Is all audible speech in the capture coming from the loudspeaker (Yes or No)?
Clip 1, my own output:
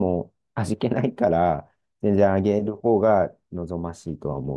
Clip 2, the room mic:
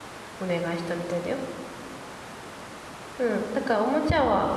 No